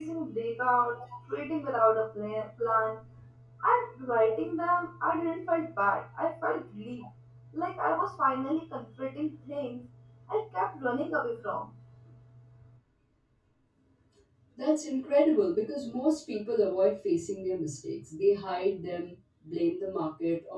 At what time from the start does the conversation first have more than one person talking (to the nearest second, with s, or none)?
none